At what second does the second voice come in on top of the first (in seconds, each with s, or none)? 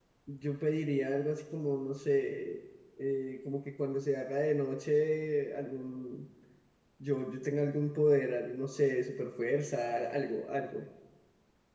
none